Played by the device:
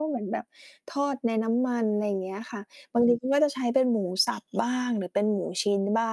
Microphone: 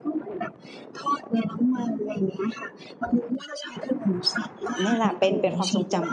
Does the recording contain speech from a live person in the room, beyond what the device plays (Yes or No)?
Yes